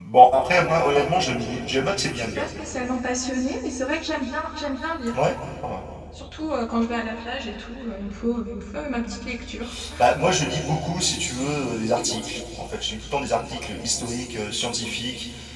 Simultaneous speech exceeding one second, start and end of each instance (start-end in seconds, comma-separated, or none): none